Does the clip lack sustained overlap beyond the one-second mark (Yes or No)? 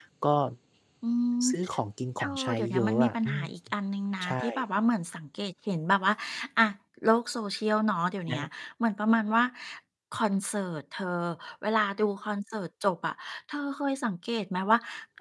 No